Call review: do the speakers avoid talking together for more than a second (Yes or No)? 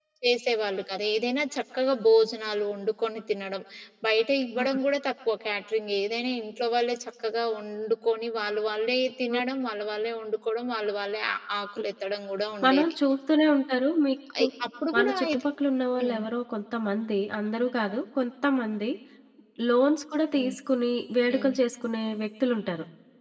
Yes